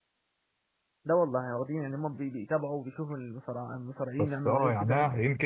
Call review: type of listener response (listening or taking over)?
taking over